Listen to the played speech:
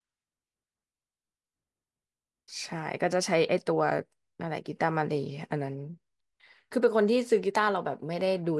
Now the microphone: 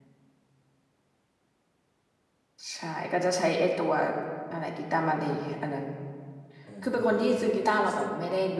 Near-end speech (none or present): present